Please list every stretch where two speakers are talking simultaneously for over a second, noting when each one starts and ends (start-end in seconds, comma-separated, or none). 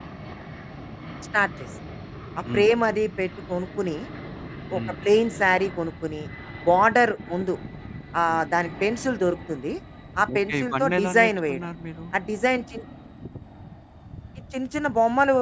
10.3-11.7